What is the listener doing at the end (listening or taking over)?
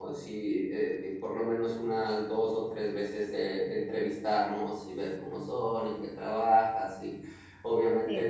listening